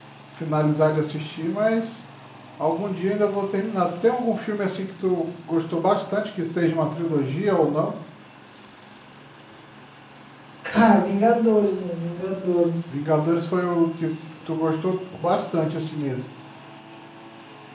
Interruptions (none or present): none